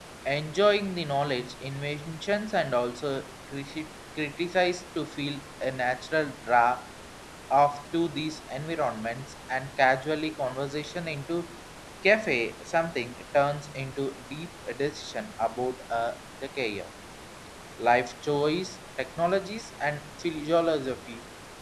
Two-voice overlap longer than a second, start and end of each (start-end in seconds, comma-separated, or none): none